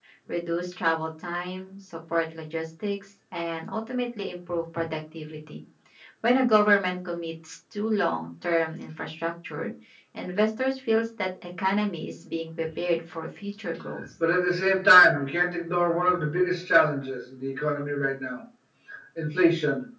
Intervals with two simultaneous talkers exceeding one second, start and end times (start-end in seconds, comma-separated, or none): none